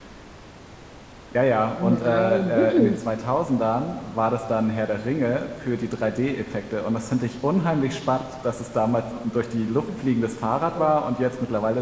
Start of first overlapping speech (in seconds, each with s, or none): 1.8 s